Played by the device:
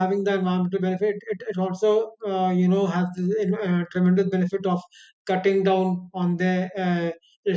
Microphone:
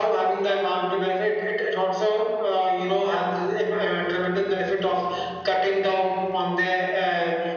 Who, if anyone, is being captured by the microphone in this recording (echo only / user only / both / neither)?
echo only